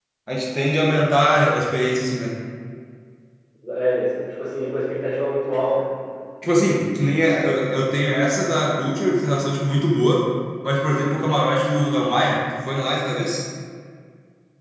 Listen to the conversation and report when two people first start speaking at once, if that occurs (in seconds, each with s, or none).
none